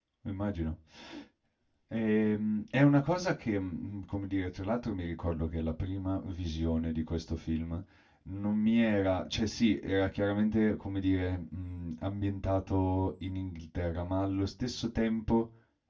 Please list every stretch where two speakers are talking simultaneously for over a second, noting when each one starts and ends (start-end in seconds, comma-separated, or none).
none